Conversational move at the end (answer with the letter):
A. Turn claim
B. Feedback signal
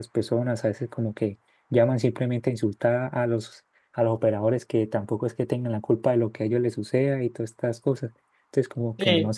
A